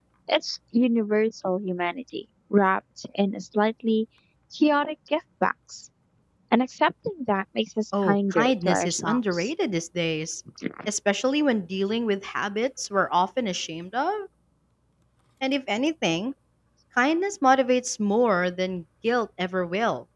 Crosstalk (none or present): present